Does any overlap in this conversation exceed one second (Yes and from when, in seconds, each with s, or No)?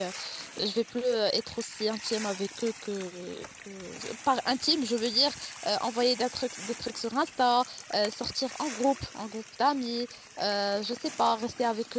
No